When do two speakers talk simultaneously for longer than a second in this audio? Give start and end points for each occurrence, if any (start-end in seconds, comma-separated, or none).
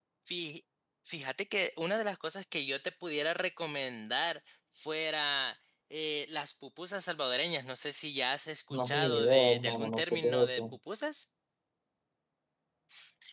8.7-10.6